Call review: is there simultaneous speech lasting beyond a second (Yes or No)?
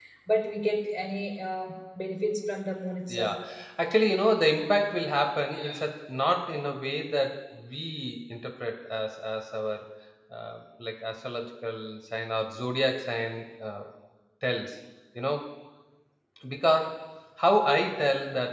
No